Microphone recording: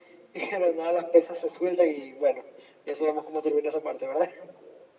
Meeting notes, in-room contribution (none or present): none